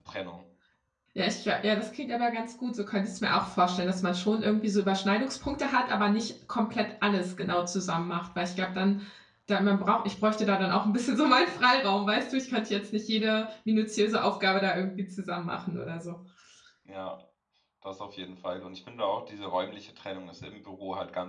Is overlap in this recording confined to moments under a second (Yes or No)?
Yes